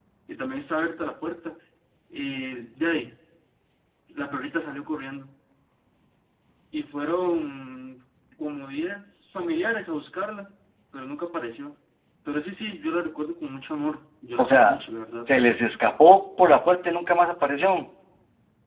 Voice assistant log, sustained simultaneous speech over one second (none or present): none